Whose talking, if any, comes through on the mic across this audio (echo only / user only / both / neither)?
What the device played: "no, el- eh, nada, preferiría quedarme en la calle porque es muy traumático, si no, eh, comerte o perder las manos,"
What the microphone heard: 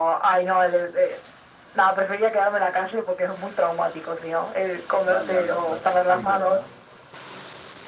both